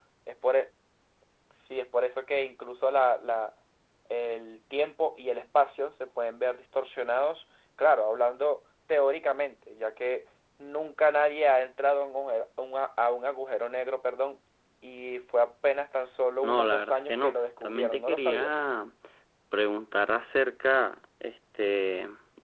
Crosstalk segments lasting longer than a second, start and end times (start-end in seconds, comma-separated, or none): 16.4-18.5